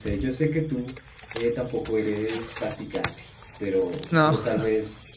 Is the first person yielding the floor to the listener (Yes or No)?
No